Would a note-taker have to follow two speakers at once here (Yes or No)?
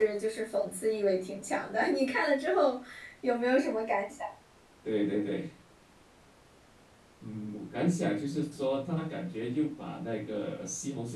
No